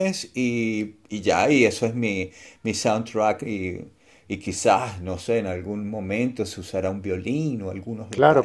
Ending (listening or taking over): taking over